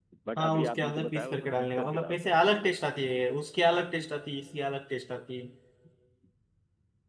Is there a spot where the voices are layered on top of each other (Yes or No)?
Yes